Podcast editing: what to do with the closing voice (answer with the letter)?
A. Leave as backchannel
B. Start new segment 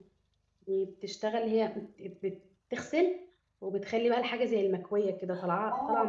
B